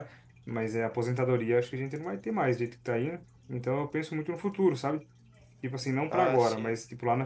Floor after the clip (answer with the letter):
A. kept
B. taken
A